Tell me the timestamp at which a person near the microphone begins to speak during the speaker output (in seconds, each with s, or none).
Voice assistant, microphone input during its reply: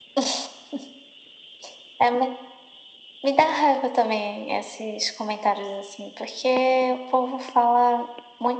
none